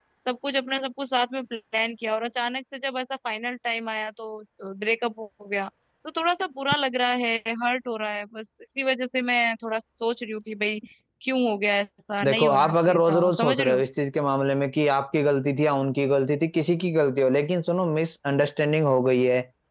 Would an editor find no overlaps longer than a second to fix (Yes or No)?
No